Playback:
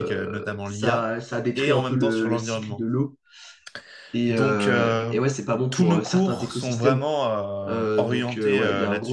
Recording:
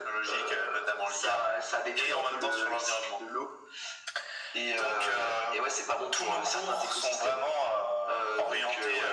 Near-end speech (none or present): none